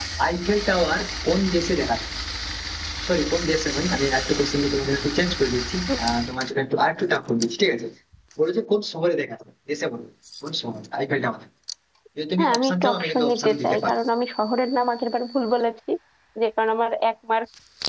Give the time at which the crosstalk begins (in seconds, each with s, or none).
12.4 s